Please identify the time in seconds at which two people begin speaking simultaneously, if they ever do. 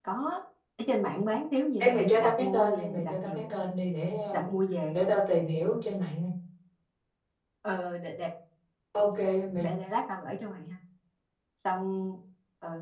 2 s

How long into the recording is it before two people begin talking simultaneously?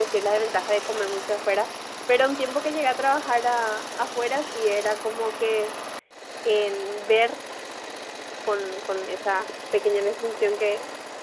none

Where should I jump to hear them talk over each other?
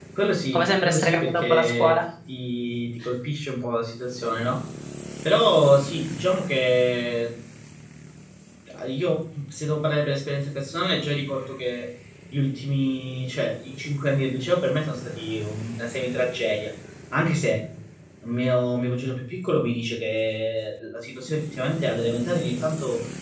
1 s

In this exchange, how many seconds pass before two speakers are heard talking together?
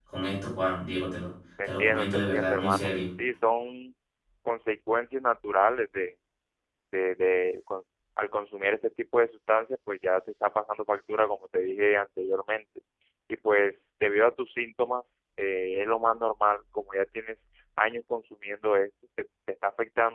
2 s

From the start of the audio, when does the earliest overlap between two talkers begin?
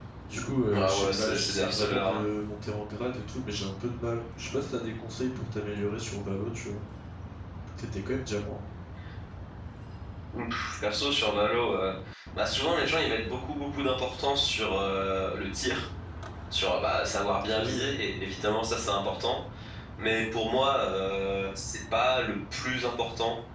1 s

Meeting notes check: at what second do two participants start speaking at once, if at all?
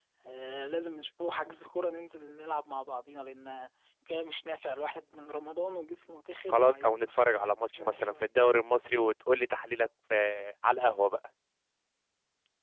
6 s

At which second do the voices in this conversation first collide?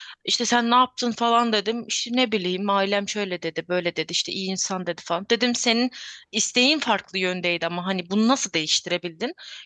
none

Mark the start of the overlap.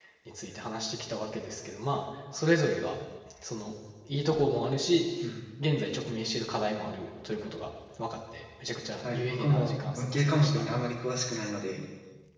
9 s

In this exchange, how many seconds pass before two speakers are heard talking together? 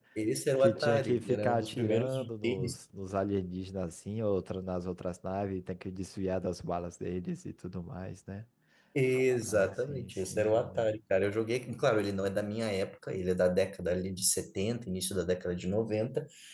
1 s

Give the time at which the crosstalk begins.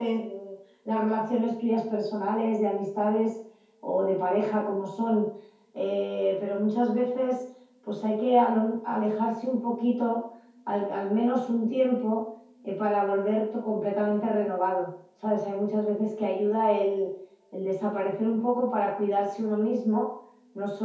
none

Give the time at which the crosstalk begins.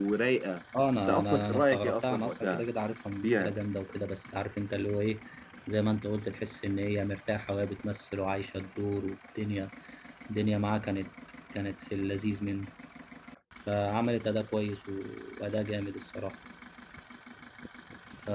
1 s

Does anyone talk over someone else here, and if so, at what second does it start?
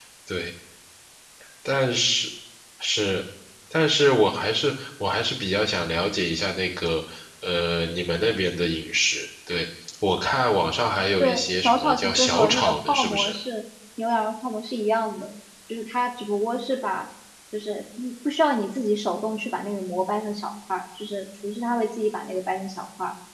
11 s

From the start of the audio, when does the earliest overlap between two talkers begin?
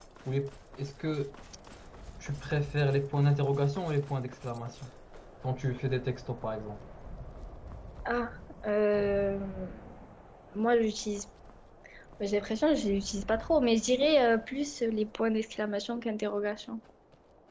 none

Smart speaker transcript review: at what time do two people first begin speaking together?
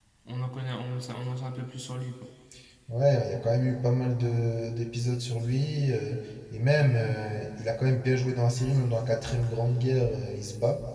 none

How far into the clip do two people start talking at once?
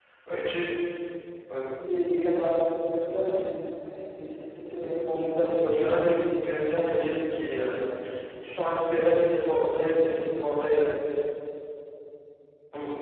5 s

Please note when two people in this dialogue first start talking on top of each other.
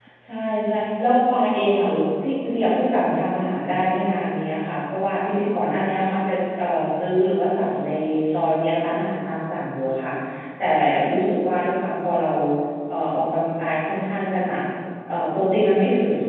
none

